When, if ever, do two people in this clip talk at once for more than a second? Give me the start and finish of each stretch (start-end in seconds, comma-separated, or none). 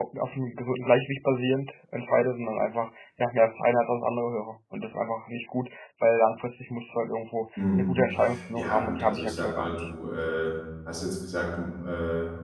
8.6-9.9